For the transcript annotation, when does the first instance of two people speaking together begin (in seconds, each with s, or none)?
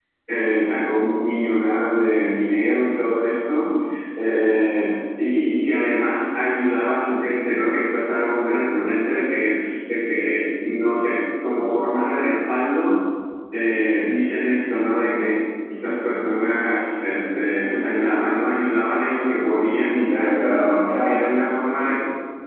19.9 s